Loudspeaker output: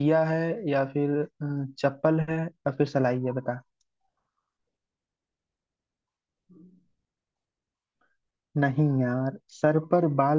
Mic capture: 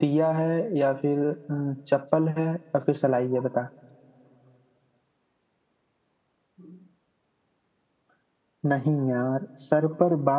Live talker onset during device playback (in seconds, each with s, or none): none